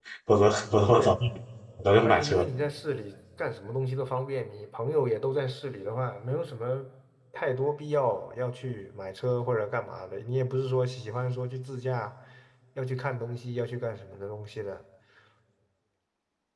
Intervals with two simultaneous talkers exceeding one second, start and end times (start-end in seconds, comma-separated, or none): none